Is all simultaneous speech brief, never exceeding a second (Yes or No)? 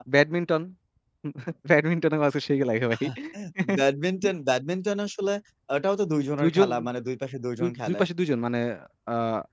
Yes